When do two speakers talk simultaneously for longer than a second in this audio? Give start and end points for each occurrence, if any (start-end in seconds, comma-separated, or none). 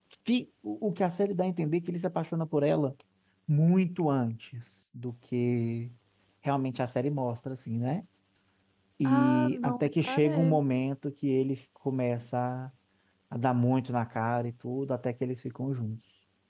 9.0-10.6